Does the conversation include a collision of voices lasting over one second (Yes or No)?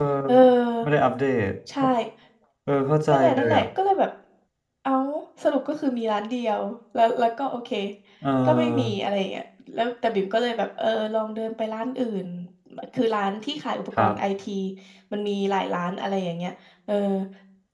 No